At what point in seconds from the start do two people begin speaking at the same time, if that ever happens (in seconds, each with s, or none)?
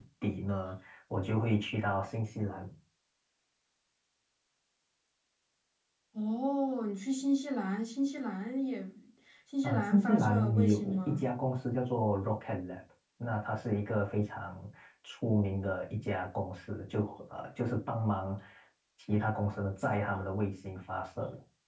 9.6 s